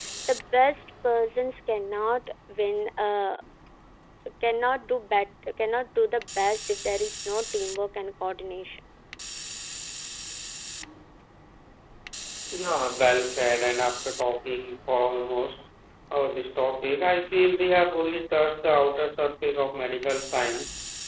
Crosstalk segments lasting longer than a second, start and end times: none

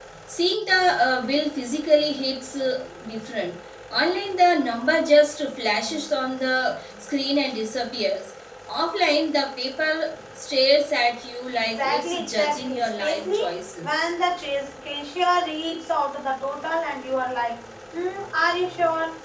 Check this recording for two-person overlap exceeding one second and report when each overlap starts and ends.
11.5-13.4

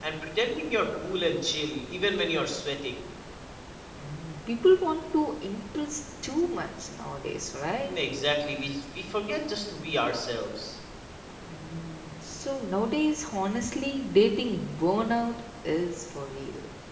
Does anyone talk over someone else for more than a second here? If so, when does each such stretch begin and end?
none

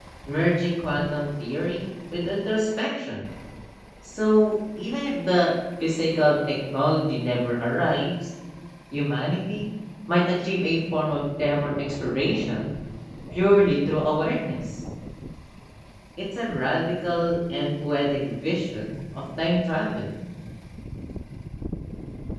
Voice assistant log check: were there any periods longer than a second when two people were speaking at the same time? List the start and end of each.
none

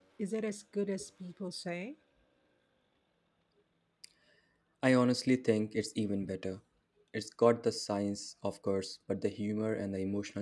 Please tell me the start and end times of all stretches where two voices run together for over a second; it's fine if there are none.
none

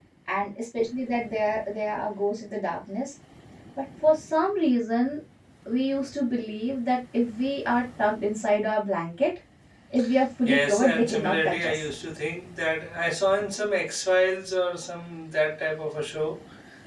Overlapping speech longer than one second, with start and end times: 10.4-11.8

